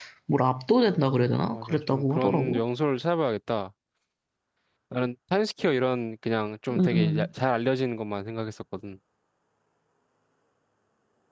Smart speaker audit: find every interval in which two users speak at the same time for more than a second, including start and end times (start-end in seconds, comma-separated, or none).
0.9-2.6